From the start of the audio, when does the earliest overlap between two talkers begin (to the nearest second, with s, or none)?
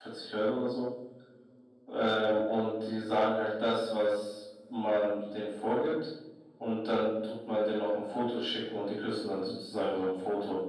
none